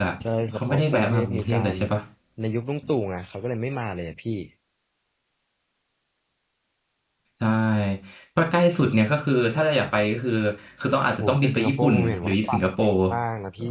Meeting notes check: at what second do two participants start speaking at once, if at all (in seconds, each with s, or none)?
0.6 s